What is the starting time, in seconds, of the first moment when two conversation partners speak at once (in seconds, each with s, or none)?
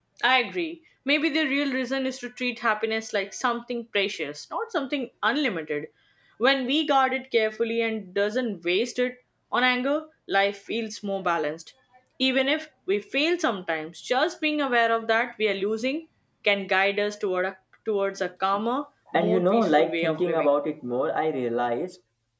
19.1 s